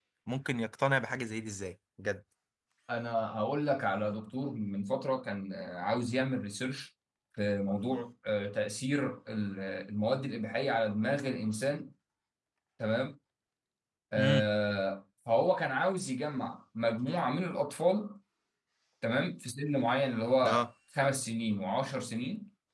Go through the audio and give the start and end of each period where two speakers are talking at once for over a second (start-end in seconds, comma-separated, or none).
none